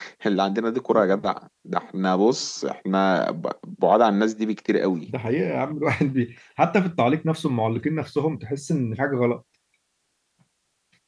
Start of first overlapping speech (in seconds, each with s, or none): none